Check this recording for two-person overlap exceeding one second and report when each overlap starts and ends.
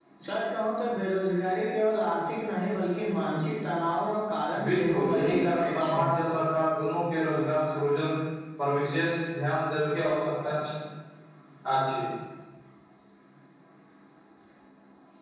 4.6-6.0

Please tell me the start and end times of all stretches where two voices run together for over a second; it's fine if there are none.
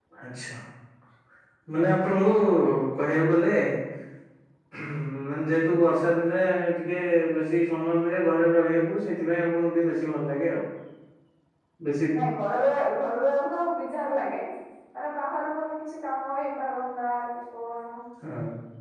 none

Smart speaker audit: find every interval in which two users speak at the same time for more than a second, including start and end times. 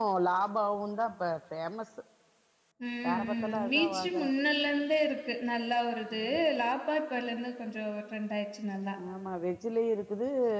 3.1-4.3

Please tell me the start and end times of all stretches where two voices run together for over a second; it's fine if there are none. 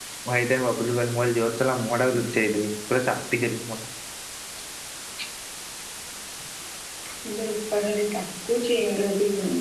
none

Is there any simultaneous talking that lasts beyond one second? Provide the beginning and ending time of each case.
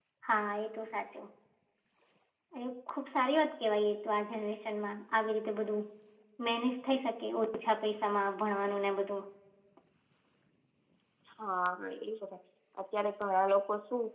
none

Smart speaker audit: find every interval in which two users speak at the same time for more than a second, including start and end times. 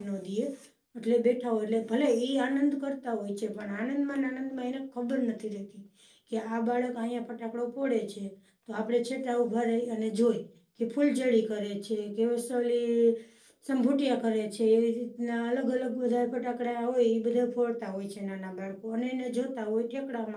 none

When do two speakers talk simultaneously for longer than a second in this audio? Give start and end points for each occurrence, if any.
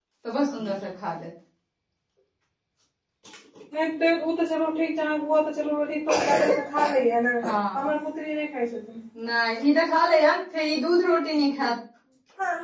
none

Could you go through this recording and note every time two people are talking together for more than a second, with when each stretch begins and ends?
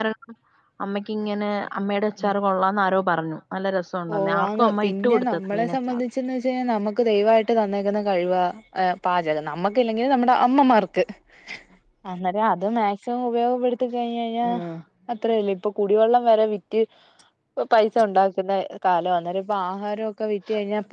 4.1-6.0

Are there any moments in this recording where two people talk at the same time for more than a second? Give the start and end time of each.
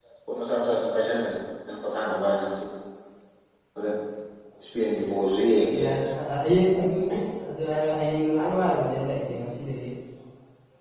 none

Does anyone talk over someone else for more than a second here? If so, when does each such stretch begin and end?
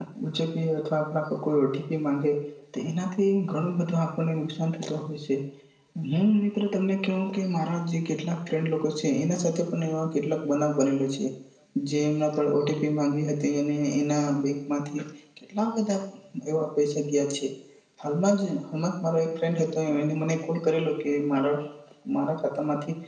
none

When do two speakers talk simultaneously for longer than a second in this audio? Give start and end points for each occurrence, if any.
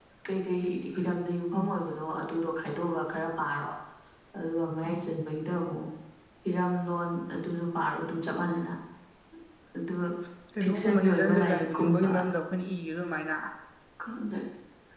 10.6-12.1

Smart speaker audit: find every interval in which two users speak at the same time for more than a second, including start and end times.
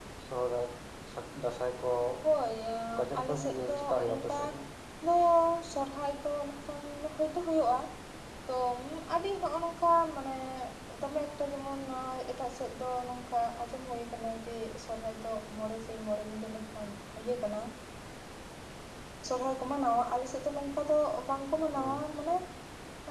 3.2-4.4

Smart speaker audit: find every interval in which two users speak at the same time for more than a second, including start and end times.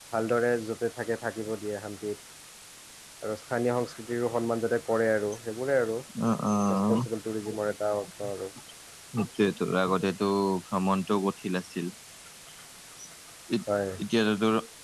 none

